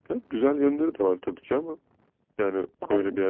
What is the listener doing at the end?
listening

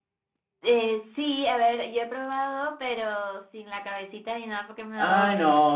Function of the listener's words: taking over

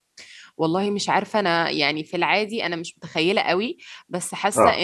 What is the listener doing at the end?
listening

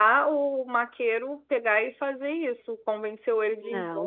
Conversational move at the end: taking over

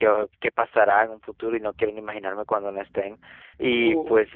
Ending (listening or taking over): listening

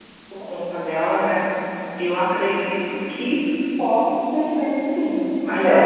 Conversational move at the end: taking over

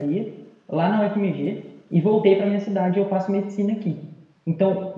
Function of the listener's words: listening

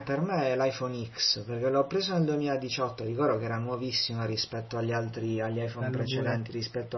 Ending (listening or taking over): listening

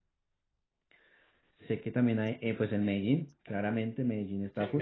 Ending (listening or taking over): taking over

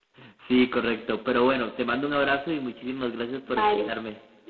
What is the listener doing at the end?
taking over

